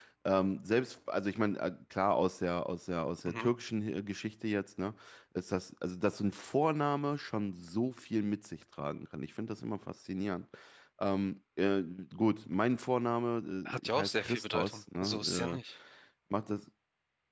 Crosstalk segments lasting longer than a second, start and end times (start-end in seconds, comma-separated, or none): 13.7-15.6